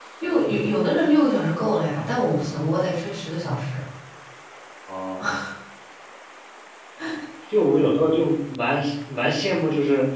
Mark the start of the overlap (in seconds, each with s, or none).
none